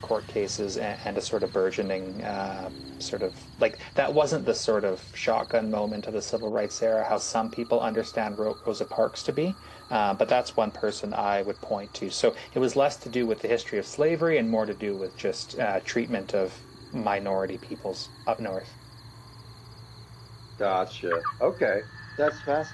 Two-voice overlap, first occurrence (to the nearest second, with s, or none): none